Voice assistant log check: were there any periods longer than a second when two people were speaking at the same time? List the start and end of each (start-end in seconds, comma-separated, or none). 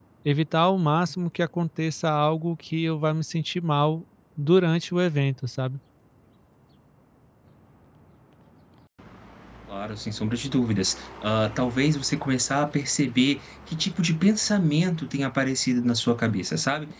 none